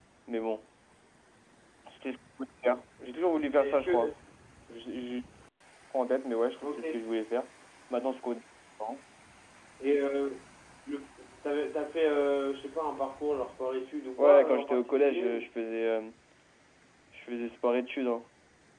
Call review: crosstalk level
present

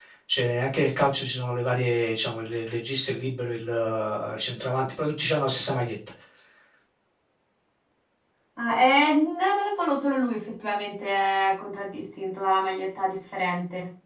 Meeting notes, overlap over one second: none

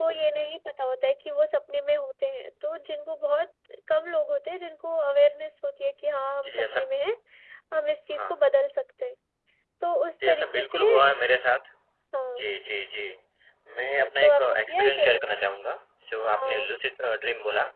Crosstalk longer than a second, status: present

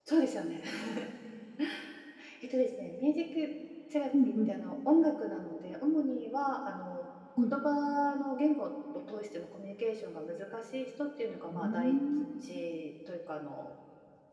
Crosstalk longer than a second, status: none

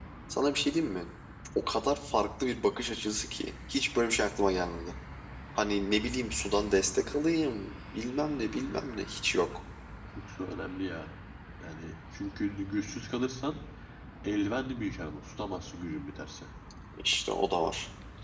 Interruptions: none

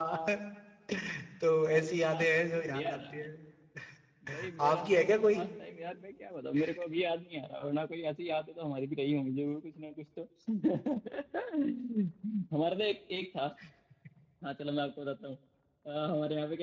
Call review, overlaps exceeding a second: present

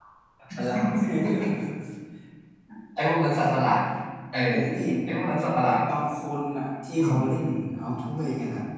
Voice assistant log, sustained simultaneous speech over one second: none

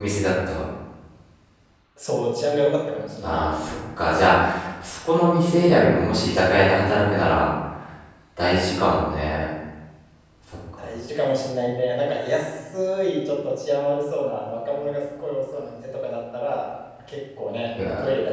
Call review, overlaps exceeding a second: none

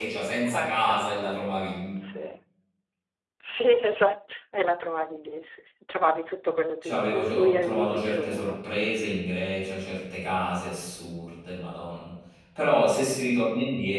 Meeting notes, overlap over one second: present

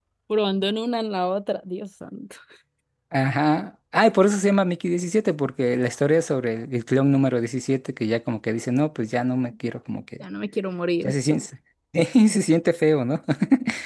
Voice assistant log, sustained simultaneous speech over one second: none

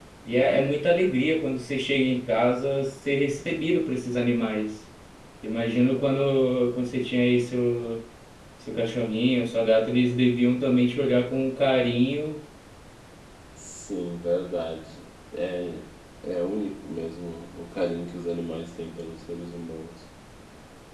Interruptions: none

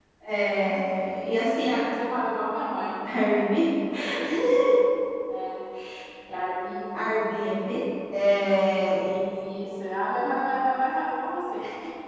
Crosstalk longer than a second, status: none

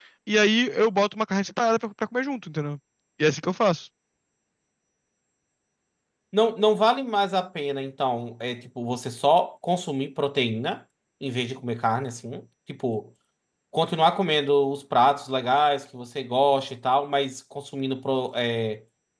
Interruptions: none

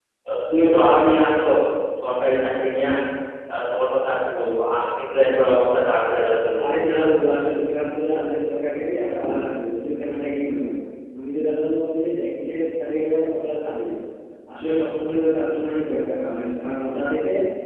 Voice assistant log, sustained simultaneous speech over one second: none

